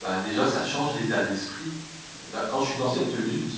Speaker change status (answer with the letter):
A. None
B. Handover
A